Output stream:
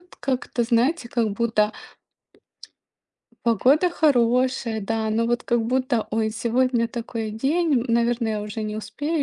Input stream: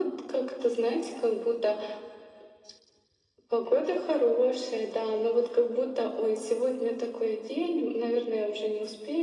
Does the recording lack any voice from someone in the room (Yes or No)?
Yes